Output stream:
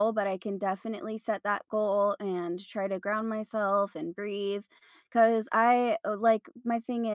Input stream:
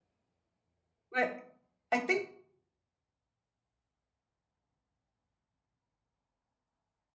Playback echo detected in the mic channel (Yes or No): No